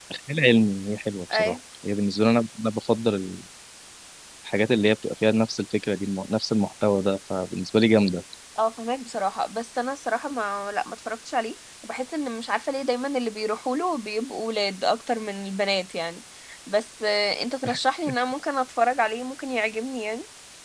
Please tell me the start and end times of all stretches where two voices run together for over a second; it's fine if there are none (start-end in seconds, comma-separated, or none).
none